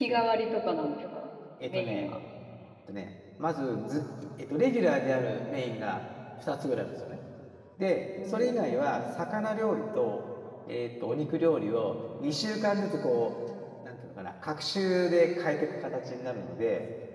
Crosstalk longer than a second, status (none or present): none